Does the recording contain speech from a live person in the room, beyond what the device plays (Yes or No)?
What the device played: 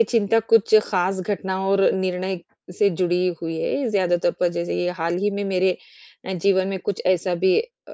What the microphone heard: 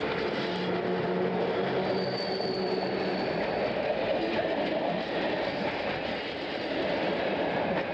No